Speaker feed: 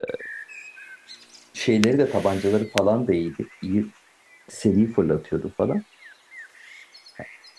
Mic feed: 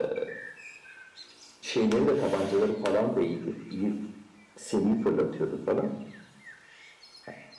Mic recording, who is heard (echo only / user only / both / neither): echo only